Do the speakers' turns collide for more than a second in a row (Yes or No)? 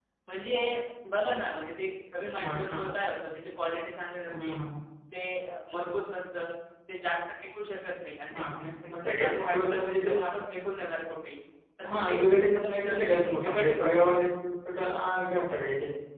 Yes